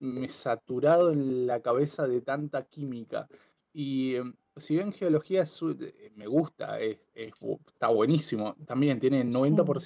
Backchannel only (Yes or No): Yes